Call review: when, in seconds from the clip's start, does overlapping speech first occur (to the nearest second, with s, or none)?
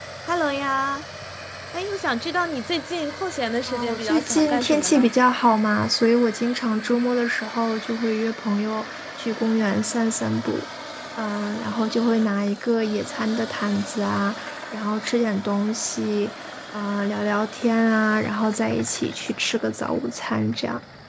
4 s